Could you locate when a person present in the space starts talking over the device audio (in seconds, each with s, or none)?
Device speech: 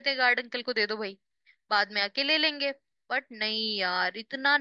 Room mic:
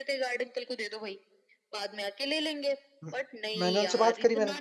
3.0 s